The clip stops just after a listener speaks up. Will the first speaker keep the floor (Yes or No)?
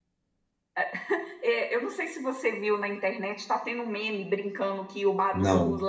Yes